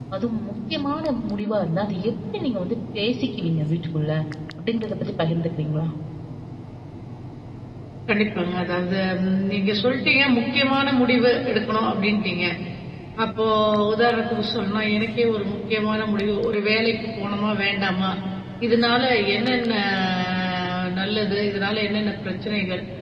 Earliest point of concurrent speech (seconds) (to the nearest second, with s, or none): none